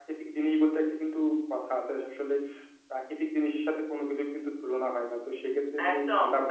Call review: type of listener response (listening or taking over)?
taking over